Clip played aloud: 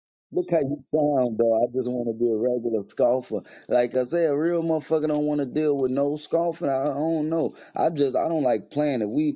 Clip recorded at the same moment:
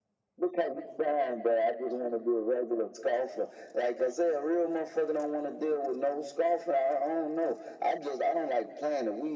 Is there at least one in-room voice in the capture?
No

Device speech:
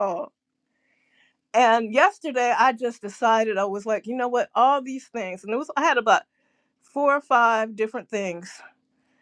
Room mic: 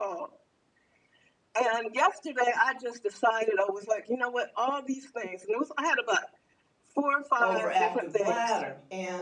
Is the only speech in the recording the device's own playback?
No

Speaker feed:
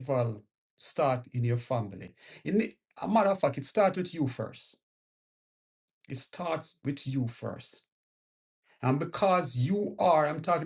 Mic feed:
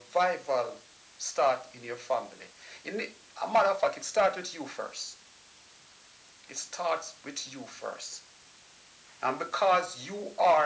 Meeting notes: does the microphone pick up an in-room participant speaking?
No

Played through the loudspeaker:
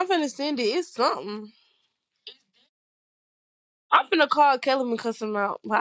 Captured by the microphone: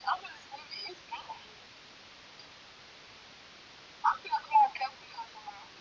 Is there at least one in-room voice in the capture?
No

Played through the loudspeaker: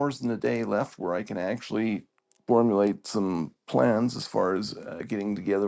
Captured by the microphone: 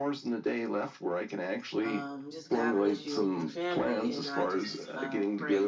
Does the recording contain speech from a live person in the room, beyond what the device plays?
Yes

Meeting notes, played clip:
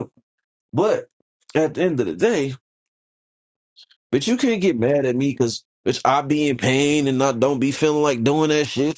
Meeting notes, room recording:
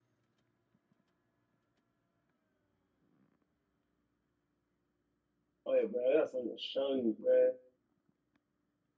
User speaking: Yes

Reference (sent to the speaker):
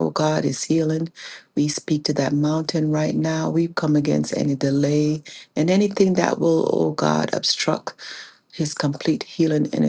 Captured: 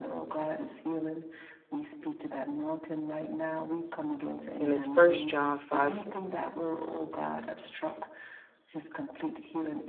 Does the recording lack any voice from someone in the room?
No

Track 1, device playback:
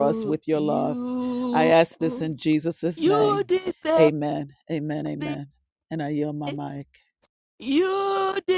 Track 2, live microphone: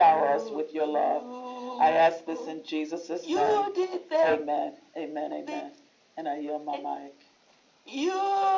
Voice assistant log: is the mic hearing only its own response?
Yes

